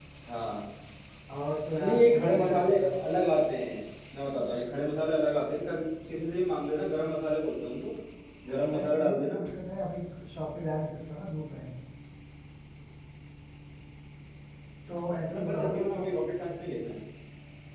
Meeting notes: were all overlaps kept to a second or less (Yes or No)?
No